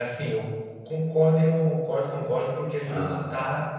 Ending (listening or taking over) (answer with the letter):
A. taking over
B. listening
B